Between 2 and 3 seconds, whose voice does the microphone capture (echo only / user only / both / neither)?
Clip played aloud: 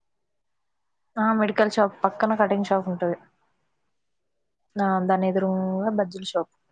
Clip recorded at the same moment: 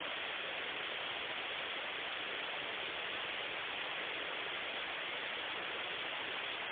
neither